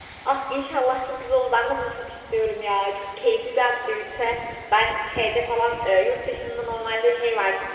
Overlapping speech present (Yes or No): No